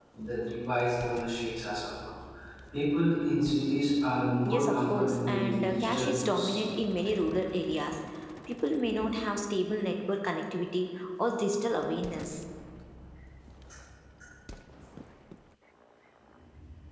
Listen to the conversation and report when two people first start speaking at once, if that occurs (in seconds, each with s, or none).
4.4 s